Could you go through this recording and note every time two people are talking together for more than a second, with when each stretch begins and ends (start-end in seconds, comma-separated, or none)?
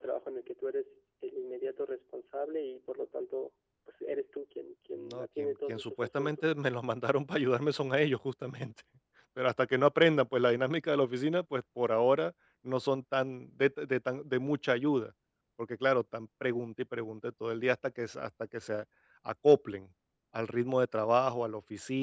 5.1-6.3